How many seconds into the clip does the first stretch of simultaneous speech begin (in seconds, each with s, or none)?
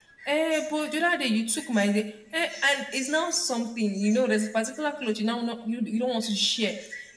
none